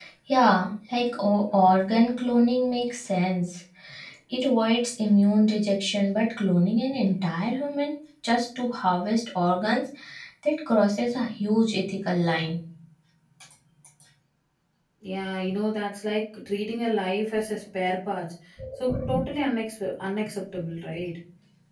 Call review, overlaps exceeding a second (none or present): none